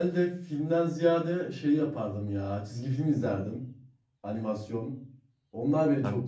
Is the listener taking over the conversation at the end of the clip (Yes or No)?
No